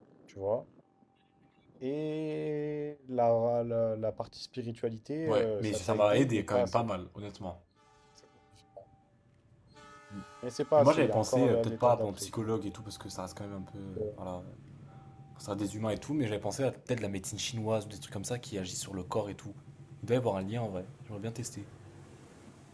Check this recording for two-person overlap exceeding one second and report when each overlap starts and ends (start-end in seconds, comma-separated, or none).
5.2-6.8, 10.8-12.3